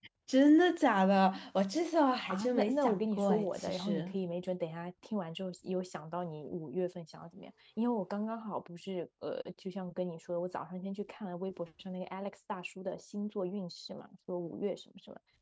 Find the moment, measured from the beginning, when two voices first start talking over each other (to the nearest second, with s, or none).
2 s